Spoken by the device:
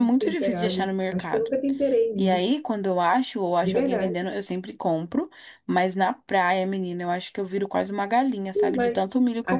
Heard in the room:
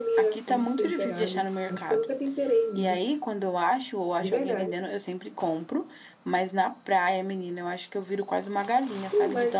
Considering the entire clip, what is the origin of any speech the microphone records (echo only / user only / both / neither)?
echo only